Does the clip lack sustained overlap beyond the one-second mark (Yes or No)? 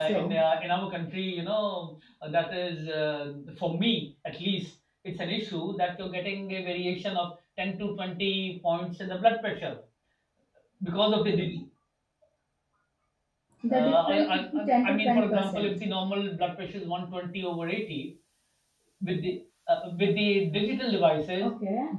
No